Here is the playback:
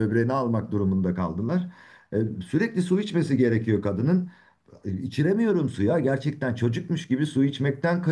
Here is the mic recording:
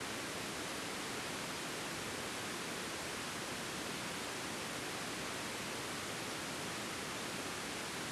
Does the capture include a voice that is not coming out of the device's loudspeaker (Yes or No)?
No